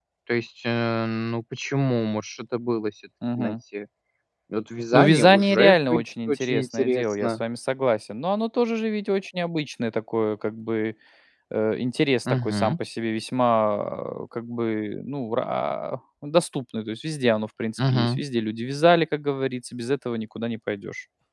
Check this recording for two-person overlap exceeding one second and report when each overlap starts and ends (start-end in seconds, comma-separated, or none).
4.9-7.4